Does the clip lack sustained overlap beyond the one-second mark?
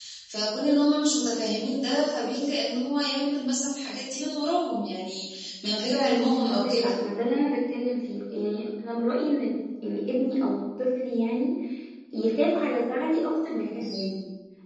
Yes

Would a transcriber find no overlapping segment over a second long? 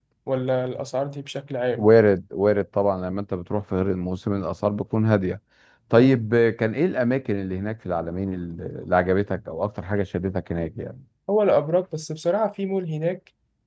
Yes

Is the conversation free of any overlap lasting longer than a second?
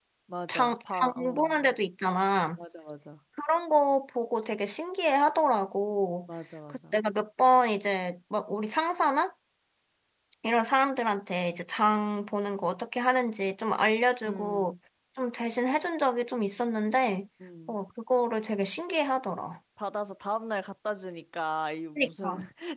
No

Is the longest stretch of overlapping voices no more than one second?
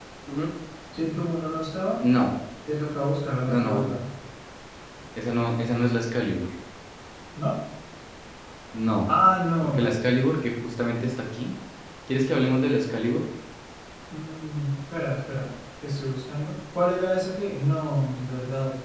Yes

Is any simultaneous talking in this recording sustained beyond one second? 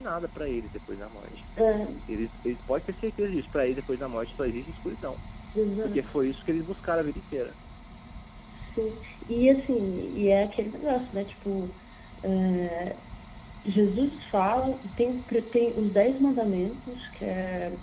No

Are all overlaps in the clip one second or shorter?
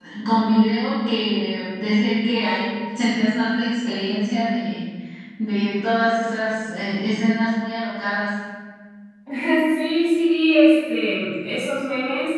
Yes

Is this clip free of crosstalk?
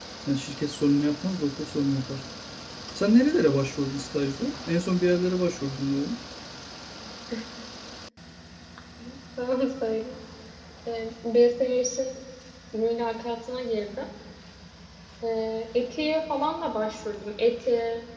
Yes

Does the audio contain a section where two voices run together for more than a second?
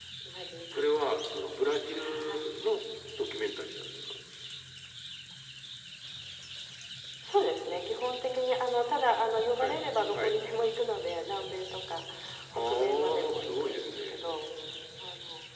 Yes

